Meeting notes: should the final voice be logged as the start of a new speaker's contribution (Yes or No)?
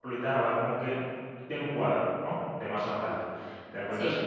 No